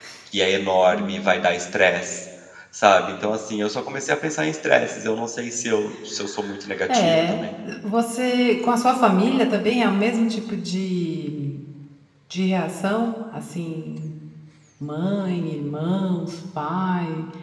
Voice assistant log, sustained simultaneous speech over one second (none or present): none